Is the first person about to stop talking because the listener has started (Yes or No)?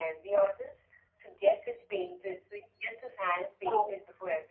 No